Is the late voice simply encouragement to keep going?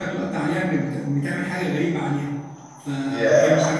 Yes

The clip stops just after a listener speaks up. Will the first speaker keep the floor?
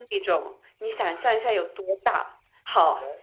Yes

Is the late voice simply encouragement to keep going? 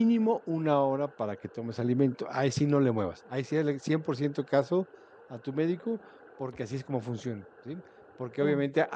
Yes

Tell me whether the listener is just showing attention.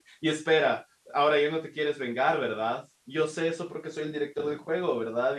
Yes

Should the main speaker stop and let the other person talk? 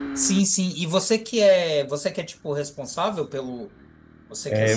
Yes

